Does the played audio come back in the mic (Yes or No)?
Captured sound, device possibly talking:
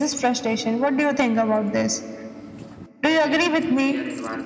Yes